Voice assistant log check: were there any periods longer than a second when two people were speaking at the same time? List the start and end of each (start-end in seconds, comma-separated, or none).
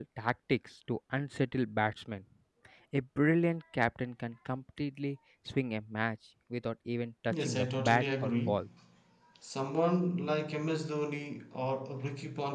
7.3-8.5